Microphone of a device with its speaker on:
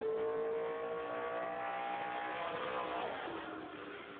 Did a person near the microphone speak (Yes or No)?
No